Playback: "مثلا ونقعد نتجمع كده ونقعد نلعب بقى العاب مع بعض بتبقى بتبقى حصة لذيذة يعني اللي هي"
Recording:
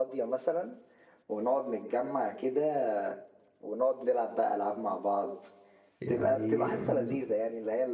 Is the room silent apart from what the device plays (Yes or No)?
No